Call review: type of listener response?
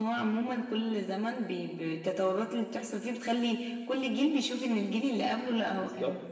taking over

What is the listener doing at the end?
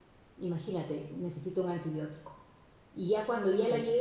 listening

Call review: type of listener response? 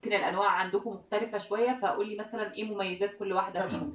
taking over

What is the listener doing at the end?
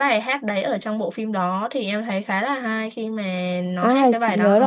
taking over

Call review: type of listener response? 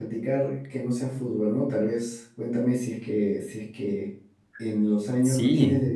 listening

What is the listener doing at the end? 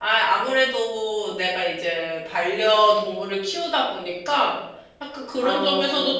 listening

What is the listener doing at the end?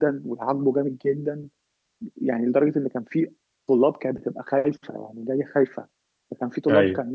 listening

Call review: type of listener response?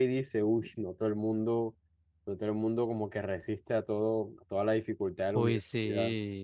taking over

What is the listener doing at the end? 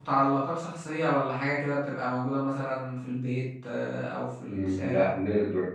taking over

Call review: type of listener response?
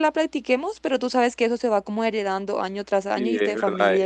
taking over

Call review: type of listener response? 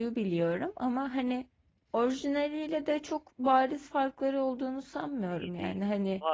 taking over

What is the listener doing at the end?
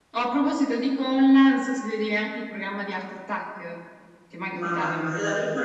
taking over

